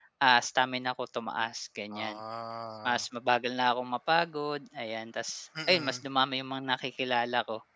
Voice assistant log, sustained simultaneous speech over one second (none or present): none